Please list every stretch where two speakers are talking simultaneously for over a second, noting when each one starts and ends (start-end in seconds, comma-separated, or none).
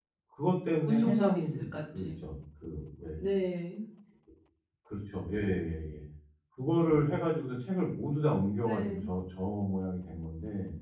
0.8-2.1